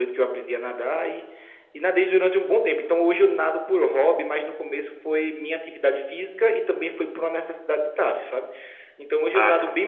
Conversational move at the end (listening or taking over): listening